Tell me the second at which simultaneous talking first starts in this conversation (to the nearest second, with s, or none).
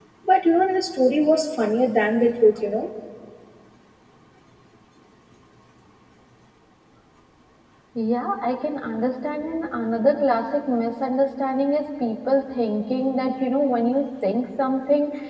none